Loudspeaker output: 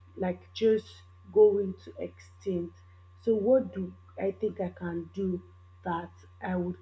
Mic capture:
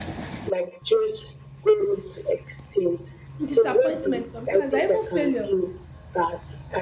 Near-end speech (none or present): present